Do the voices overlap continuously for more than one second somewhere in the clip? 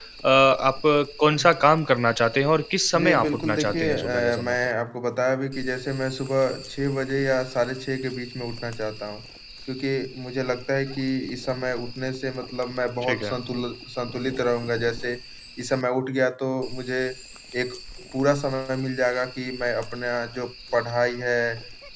Yes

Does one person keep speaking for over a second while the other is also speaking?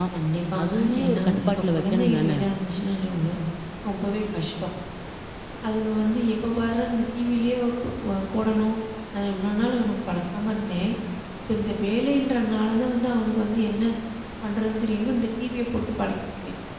Yes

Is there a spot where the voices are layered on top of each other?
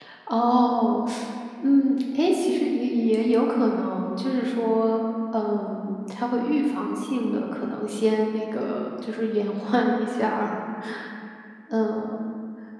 No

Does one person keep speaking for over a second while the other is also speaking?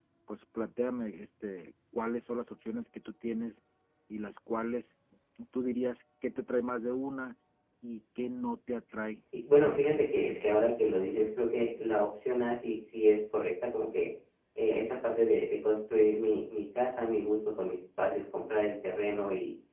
Yes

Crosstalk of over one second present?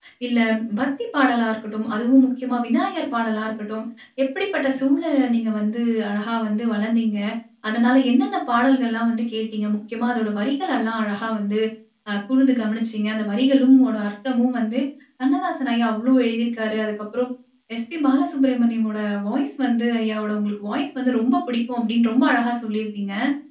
No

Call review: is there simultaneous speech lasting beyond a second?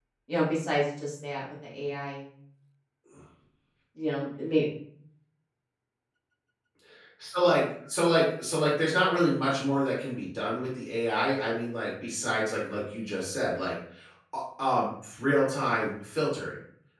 No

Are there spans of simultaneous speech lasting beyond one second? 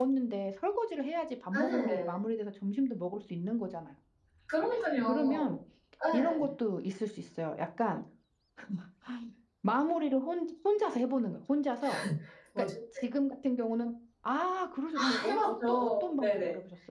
Yes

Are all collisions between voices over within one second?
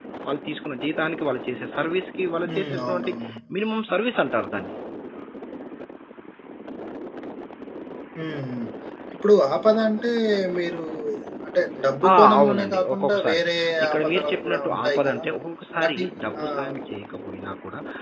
No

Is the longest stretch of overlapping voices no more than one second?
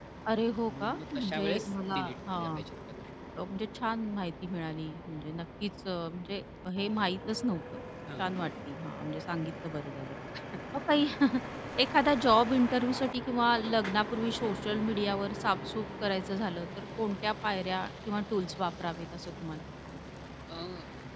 No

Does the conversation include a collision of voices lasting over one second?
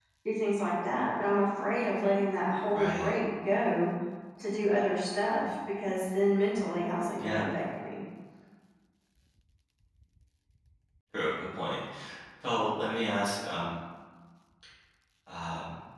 No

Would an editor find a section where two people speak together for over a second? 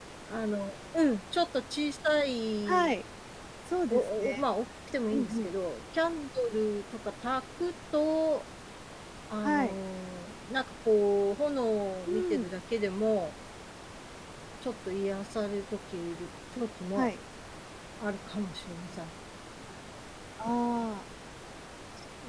No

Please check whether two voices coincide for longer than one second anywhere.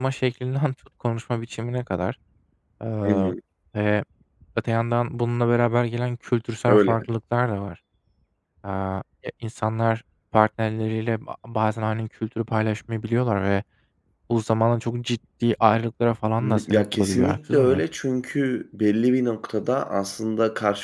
Yes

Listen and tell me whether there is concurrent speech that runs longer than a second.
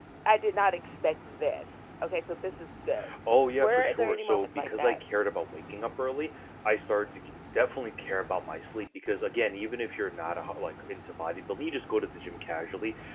Yes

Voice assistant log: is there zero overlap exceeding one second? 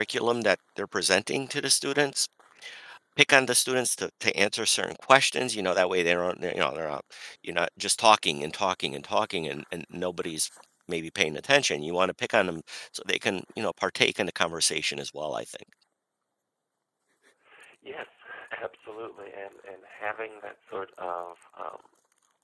Yes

